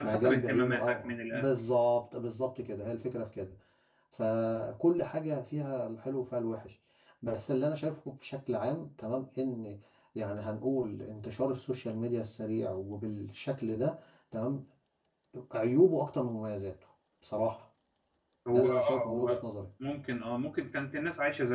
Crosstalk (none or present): present